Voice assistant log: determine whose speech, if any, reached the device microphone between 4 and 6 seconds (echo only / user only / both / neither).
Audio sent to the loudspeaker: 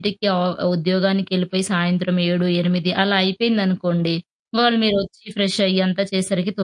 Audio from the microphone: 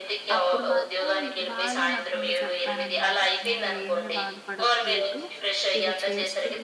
both